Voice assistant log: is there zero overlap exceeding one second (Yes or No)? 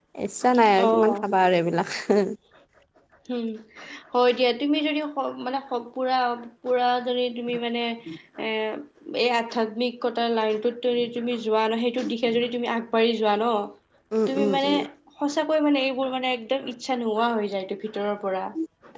Yes